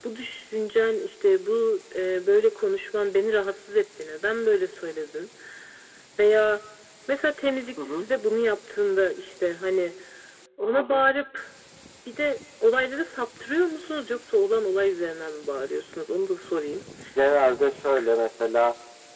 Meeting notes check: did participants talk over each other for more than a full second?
No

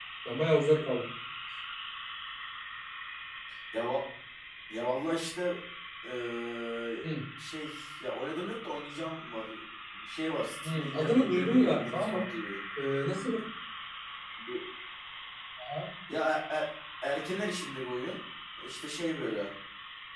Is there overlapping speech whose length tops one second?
Yes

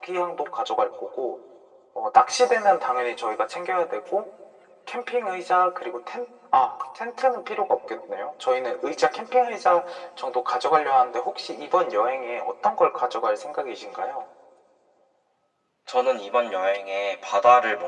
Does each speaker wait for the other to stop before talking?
Yes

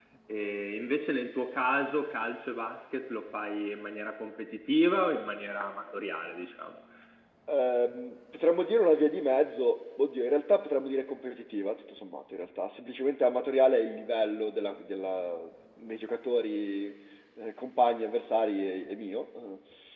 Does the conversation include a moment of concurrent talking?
No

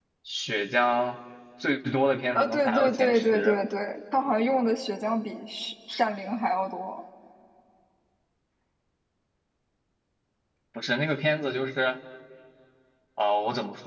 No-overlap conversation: No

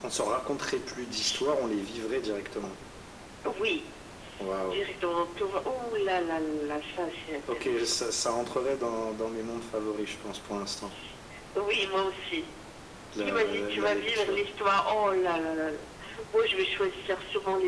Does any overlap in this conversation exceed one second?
Yes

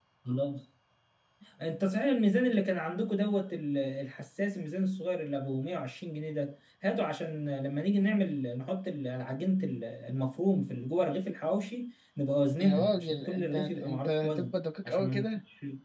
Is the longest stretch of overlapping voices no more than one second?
No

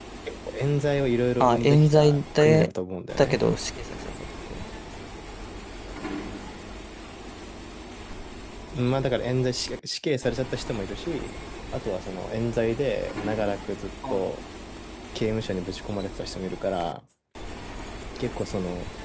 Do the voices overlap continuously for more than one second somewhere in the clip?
Yes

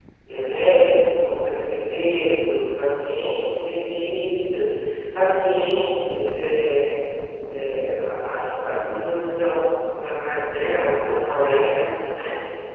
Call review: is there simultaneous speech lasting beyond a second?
No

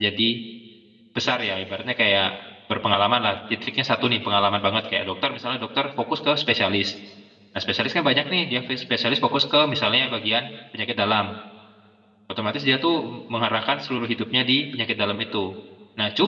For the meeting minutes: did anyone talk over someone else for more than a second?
No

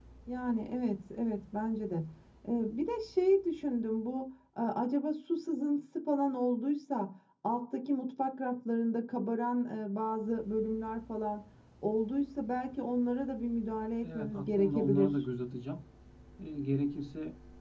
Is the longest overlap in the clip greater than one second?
Yes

